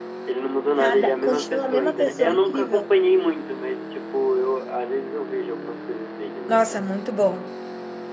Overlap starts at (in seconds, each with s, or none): 0.8 s